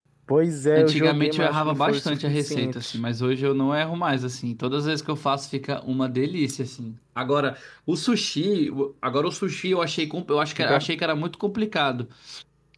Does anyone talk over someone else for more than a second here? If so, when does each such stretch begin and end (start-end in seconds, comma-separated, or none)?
0.8-3.0